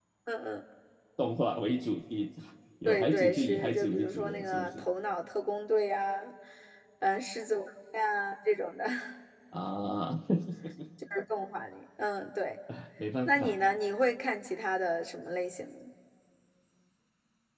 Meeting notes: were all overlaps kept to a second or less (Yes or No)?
No